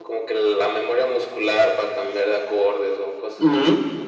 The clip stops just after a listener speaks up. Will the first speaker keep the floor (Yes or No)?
No